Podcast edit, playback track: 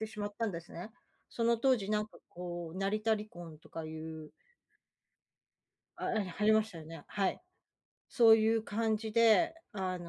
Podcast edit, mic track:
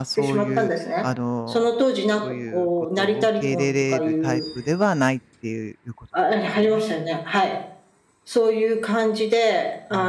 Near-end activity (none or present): present